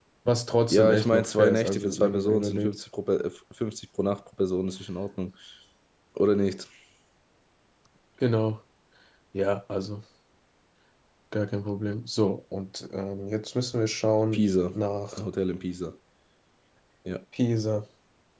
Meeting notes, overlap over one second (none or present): present